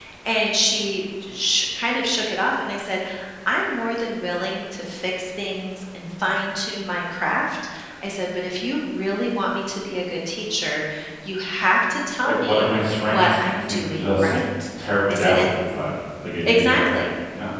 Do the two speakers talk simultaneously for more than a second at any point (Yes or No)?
Yes